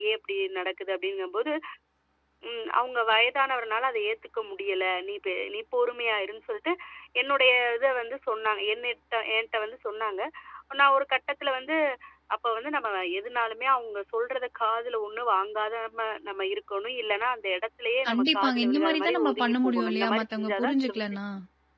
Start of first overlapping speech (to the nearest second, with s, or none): 18 s